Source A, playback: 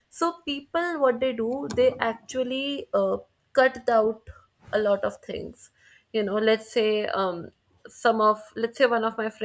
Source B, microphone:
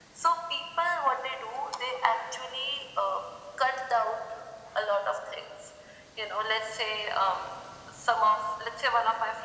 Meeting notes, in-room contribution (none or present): none